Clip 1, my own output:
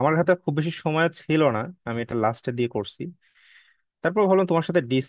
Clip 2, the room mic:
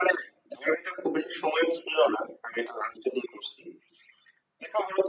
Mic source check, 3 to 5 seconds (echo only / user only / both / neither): echo only